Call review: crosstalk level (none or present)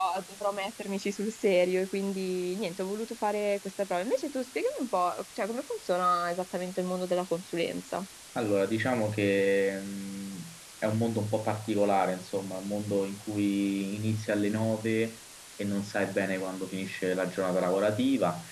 none